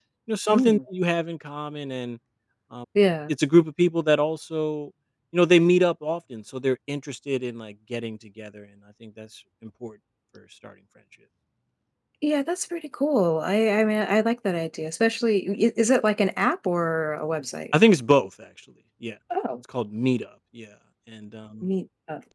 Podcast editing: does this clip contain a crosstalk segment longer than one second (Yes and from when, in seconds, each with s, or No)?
No